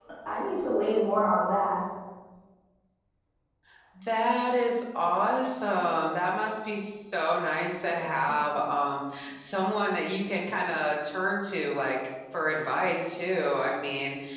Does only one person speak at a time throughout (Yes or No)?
Yes